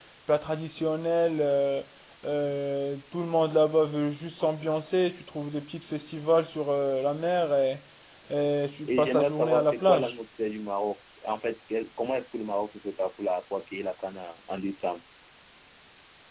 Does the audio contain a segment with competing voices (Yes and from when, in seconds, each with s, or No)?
Yes, from 8.8 s